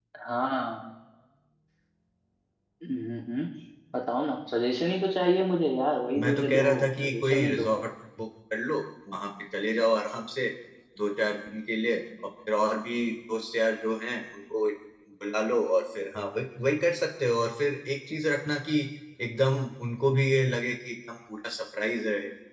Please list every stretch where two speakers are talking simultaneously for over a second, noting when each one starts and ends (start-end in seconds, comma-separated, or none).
6.2-7.8